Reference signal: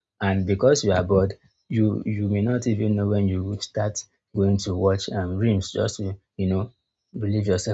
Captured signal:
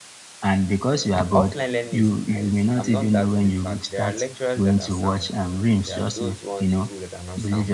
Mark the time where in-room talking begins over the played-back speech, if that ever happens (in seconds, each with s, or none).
1.3 s